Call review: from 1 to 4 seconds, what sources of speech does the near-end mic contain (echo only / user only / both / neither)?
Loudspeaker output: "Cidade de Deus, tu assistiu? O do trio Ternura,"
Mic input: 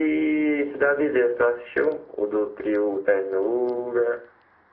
echo only